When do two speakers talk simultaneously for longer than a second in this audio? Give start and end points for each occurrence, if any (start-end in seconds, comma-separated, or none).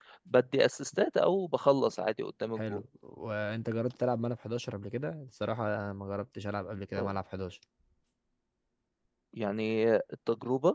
none